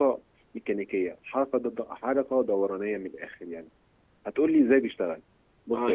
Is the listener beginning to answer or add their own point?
Yes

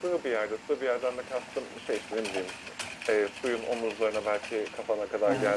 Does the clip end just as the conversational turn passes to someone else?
No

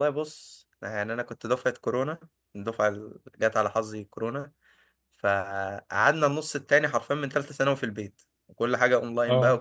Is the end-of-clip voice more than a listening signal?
No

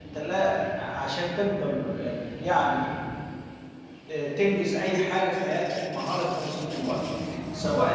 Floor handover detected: No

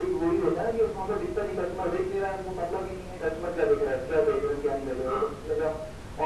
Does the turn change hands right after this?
No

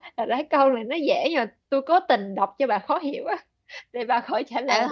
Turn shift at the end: Yes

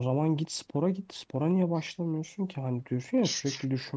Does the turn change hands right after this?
No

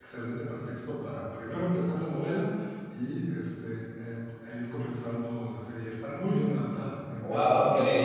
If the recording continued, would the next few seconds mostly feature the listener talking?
Yes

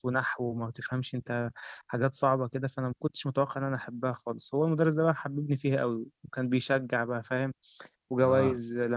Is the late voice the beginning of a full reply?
No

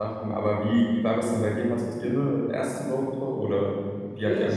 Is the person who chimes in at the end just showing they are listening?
No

